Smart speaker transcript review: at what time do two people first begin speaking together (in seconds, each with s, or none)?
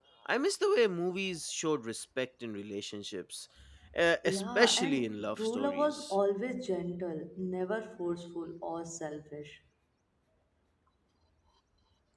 4.2 s